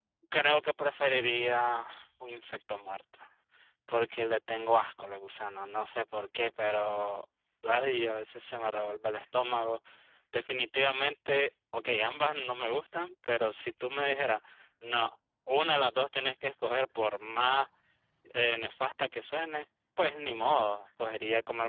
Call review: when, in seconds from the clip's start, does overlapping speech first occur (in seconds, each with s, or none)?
none